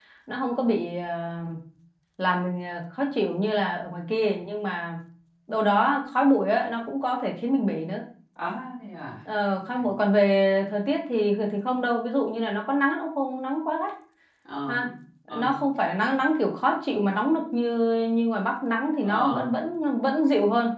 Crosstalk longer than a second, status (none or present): none